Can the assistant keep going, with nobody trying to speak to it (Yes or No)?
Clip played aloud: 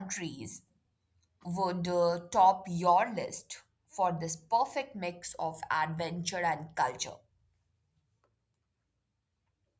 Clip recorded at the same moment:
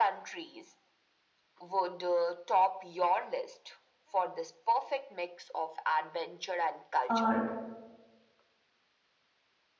No